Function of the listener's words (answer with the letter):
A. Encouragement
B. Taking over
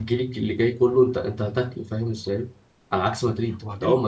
A